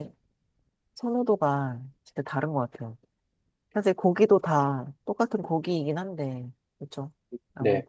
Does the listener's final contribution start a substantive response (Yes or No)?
Yes